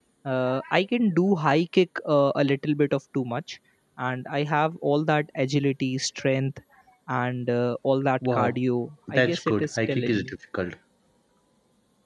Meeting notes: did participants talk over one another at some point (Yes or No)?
Yes